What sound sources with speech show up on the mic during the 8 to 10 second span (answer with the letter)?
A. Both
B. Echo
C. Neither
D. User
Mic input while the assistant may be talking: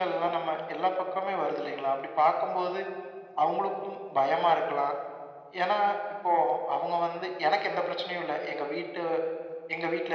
B